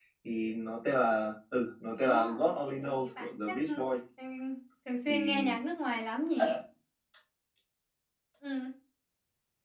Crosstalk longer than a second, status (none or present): present